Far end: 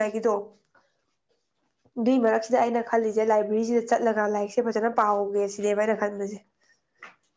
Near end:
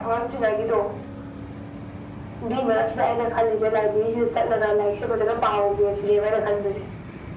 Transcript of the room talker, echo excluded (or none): none